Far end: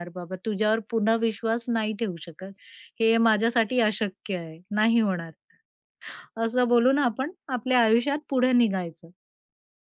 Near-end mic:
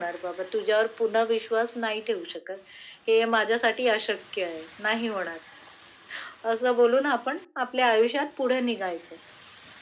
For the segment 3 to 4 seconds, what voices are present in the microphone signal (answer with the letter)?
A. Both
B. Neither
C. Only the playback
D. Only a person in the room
C